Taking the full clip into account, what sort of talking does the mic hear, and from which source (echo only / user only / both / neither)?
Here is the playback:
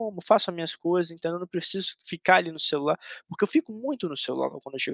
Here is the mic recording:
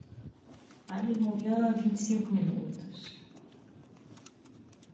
user only